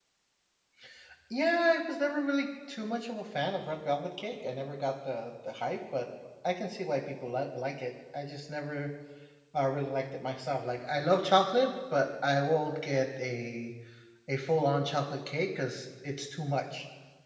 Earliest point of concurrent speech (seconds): none

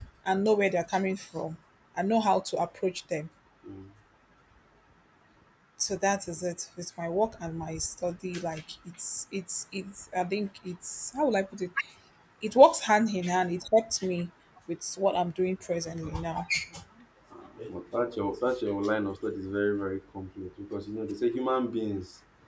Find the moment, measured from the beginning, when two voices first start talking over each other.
none

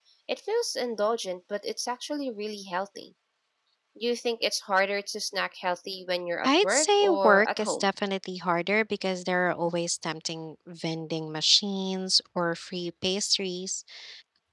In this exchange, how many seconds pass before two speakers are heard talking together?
6.4 s

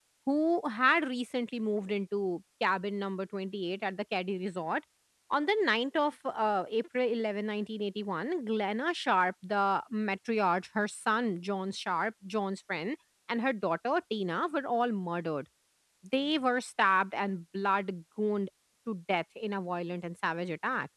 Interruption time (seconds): none

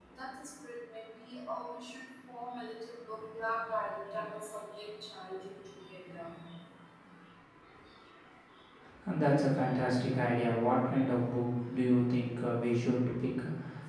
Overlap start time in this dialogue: none

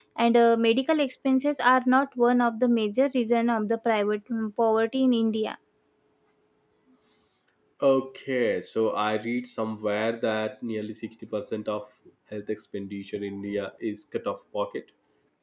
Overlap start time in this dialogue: none

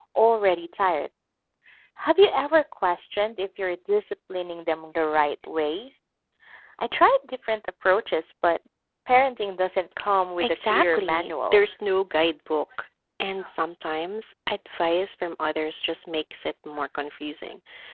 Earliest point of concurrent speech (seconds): 10.4 s

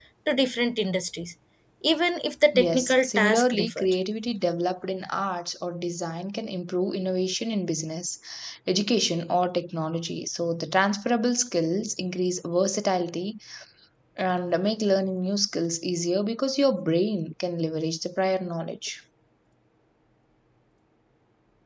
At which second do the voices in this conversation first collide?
2.5 s

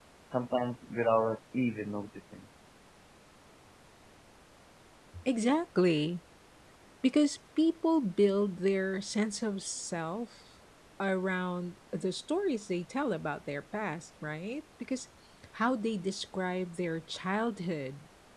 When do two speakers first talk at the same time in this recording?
none

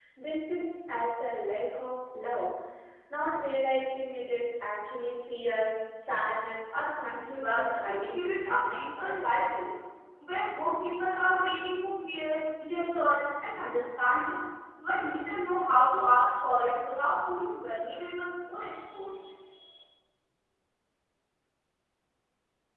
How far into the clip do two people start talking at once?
7.3 s

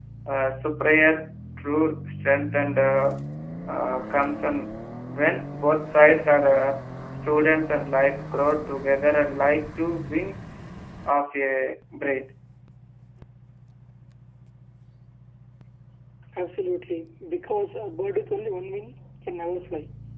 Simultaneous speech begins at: none

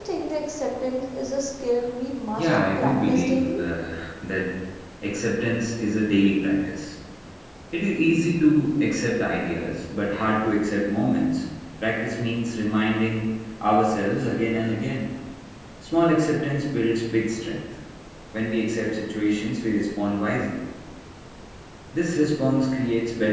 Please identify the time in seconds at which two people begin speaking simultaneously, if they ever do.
2.4 s

